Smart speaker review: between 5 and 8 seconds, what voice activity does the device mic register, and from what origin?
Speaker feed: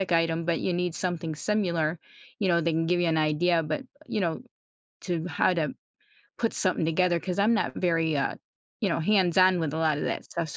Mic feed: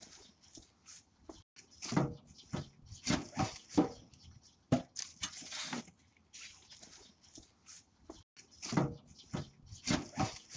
neither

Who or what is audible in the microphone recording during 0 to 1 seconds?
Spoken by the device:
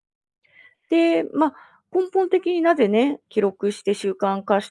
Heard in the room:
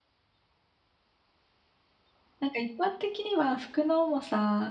neither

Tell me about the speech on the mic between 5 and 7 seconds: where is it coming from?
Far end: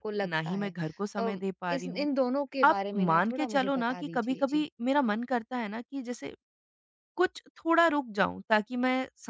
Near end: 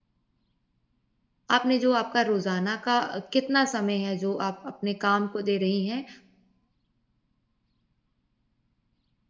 user only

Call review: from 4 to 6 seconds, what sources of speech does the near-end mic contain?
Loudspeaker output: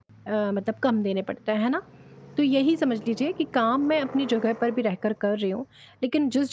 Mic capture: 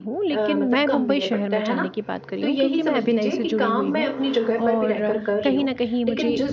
both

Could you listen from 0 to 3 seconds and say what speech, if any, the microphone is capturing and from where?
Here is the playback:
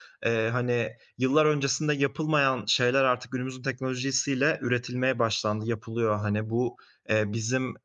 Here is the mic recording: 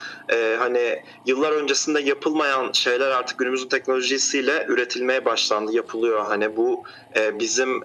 echo only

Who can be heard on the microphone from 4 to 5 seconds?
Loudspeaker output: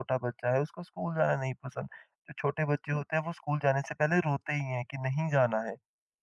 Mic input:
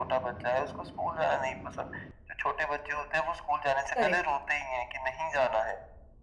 both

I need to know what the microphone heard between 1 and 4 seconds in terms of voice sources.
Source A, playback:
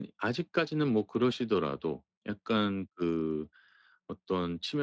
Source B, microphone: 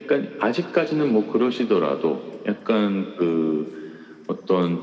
echo only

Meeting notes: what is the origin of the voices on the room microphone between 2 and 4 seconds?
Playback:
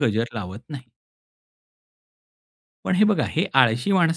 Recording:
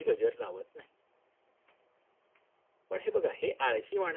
echo only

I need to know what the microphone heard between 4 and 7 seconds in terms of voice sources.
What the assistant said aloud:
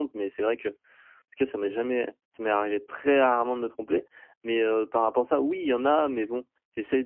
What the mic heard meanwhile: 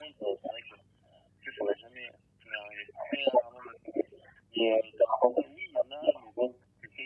echo only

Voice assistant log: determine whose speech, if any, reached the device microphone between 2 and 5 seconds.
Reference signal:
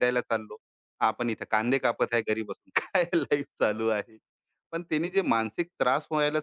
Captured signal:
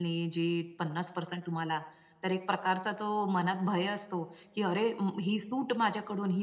user only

